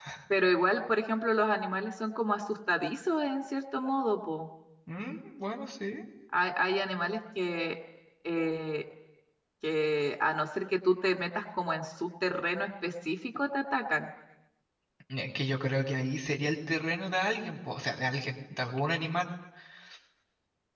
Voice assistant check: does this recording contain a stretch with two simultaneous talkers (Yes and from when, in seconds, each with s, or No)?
No